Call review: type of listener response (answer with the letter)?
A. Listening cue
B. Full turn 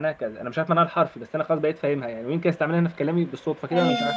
A